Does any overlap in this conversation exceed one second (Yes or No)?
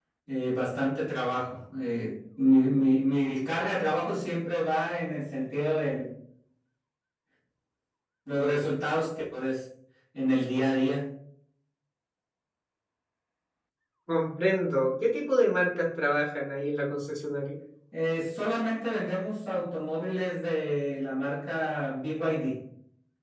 No